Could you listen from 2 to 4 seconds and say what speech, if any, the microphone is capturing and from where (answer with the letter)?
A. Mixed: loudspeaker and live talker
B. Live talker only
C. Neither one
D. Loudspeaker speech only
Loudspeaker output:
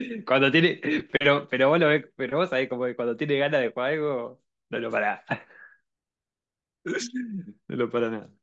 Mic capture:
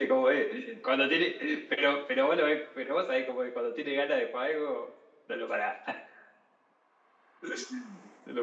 D